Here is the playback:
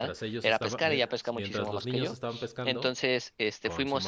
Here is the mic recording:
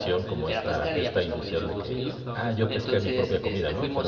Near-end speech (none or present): present